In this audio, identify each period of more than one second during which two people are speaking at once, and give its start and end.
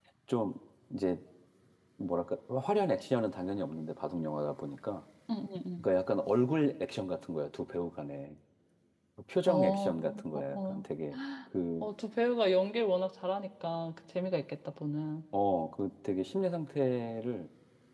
9.5-10.8

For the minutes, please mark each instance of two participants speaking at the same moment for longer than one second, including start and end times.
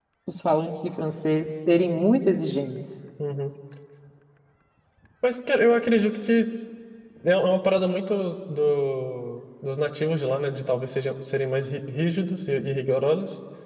none

